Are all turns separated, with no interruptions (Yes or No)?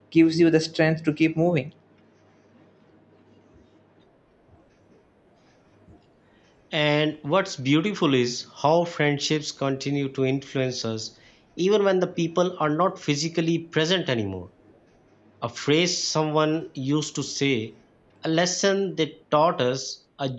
Yes